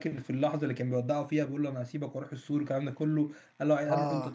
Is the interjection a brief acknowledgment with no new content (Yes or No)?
Yes